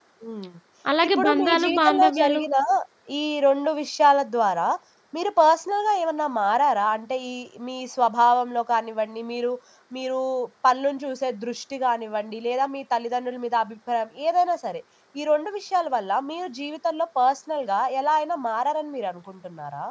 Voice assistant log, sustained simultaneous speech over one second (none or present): present